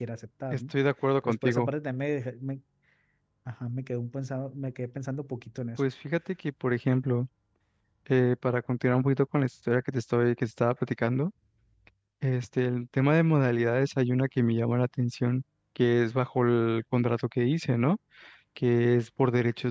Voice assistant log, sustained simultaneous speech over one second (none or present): none